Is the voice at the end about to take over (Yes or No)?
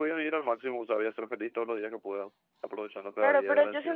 Yes